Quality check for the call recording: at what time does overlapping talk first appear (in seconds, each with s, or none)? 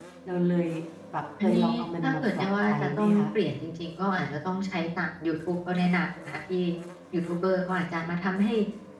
1.4 s